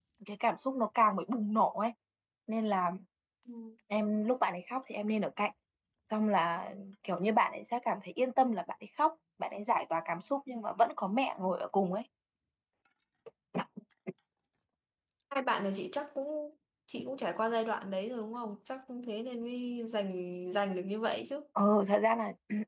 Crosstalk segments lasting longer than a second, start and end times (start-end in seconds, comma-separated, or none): none